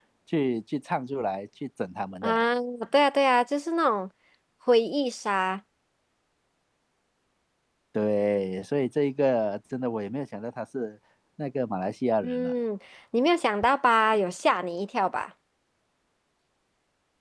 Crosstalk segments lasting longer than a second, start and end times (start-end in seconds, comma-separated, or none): none